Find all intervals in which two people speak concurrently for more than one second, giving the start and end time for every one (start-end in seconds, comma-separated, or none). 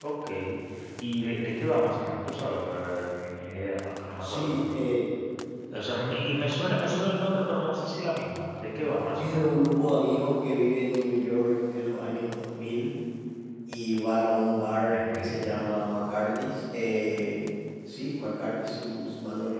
none